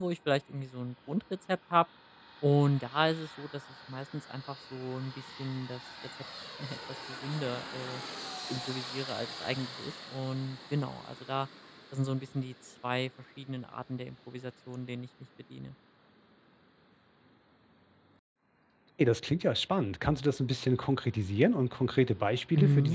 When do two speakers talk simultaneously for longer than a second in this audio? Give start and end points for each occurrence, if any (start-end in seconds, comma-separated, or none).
none